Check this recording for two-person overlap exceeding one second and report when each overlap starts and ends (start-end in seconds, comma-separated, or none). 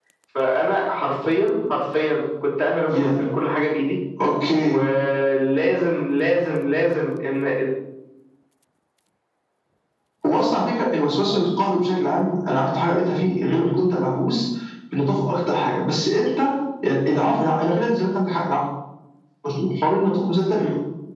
none